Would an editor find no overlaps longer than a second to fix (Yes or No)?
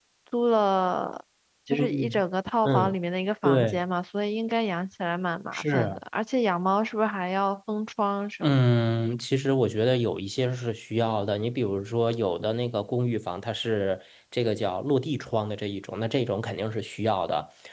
Yes